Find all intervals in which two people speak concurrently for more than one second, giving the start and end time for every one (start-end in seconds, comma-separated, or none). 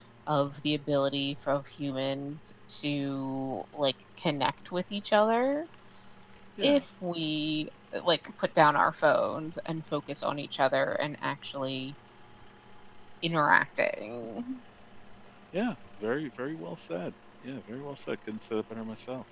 none